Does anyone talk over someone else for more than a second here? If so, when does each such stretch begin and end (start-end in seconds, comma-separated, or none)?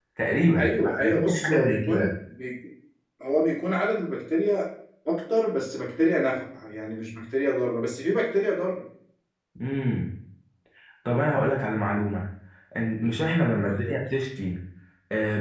0.6-2.1